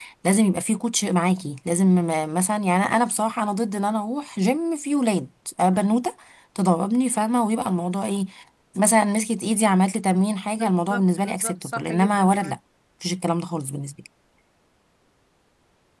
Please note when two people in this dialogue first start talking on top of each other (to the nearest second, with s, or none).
11 s